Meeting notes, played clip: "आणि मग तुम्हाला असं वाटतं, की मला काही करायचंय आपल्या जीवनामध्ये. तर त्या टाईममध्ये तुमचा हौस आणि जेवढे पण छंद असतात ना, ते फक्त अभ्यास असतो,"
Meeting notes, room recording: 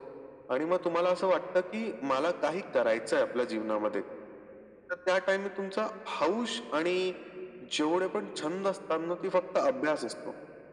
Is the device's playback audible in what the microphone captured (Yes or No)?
Yes